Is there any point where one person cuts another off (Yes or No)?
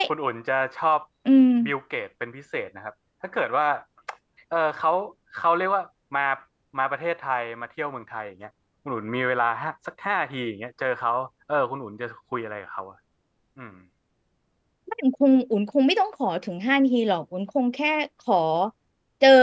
No